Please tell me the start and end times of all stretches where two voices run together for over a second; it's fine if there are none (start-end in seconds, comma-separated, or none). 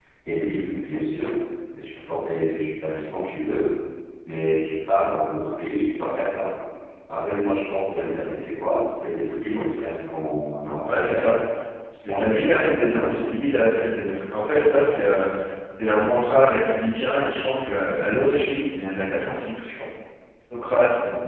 12.0-13.3